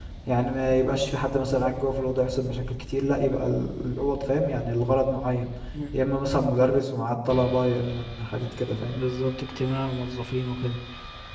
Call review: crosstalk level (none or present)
none